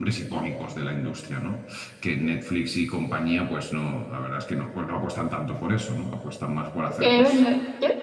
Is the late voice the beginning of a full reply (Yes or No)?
Yes